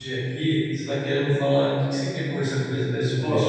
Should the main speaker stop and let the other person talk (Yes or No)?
Yes